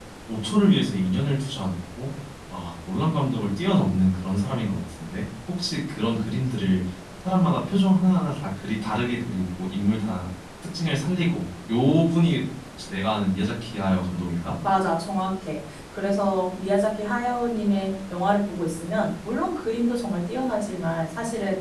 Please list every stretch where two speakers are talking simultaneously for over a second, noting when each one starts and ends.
none

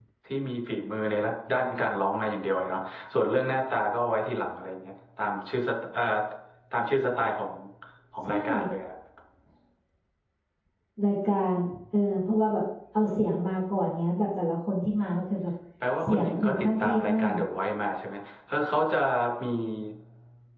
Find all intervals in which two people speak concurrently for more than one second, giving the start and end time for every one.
16.0-17.4

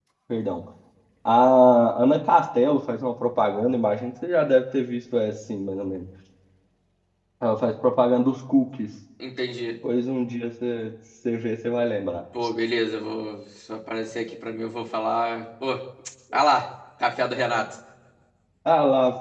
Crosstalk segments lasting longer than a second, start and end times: none

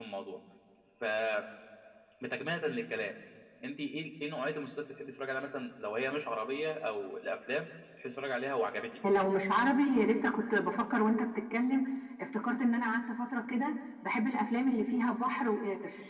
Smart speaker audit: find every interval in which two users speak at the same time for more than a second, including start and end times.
none

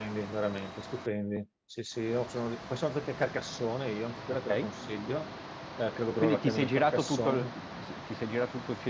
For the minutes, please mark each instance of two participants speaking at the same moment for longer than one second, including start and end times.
6.2-7.5

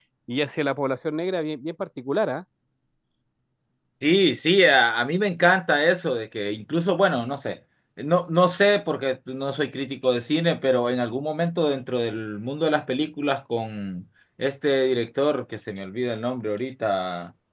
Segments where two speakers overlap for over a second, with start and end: none

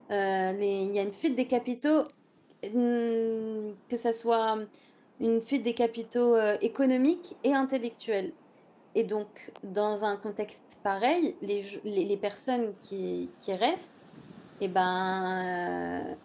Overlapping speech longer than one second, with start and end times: none

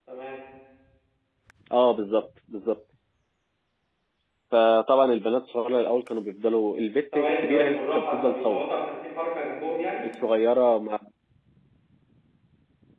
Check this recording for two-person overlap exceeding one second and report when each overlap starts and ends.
7.2-8.6

